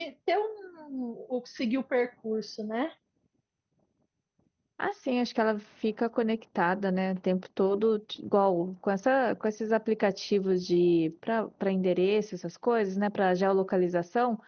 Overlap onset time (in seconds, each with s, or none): none